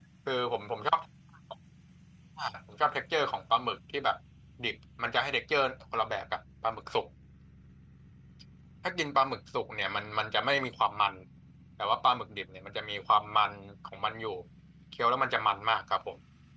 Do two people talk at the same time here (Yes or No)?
No